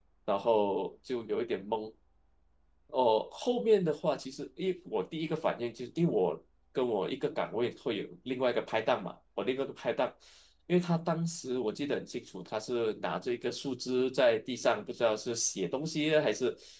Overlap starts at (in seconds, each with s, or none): none